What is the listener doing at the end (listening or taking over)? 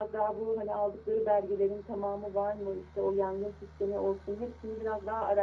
listening